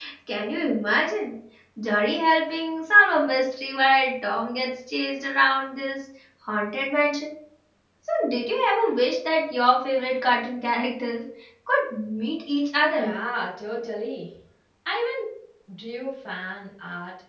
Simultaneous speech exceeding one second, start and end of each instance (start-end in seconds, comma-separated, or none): none